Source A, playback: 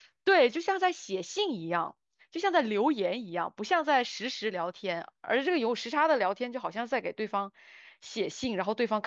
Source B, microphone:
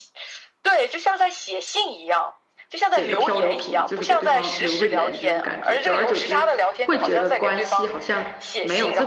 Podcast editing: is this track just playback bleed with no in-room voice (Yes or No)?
No